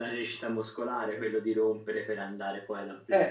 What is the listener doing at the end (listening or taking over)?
taking over